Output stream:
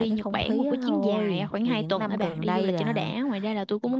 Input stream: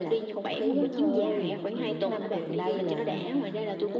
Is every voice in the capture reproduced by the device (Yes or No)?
No